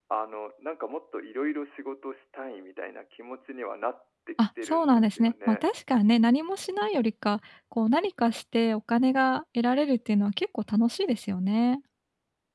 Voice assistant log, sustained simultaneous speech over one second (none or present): present